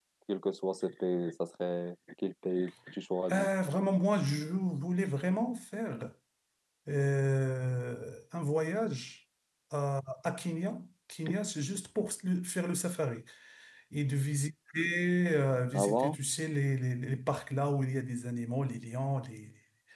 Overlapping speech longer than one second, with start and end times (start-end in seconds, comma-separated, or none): none